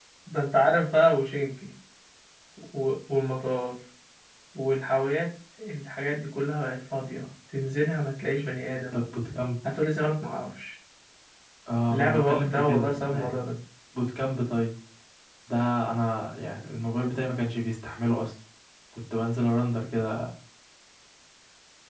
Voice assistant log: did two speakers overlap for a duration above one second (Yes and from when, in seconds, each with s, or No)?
Yes, from 11.9 s